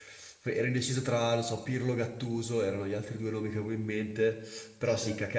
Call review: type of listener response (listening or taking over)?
listening